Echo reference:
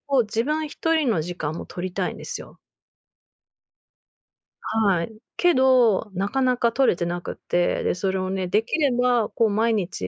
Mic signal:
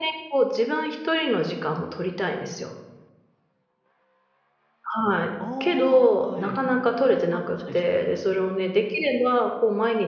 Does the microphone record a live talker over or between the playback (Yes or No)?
Yes